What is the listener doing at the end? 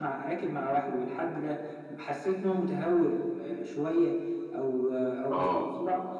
listening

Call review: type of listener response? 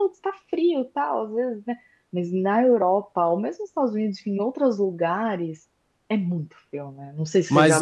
taking over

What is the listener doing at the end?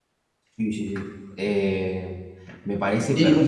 taking over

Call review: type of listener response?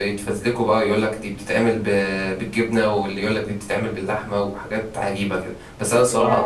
listening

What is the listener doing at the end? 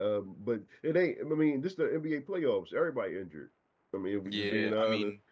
taking over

